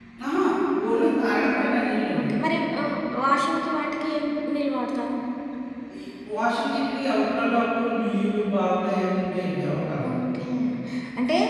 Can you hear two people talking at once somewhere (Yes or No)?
No